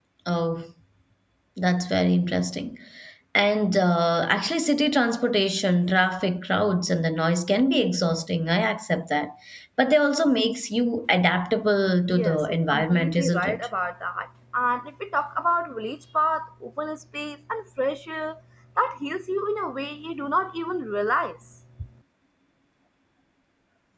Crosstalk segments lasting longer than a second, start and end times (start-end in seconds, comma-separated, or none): 12.1-13.6